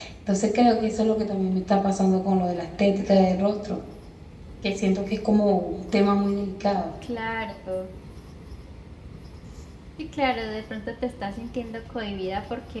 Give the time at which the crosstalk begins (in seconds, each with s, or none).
none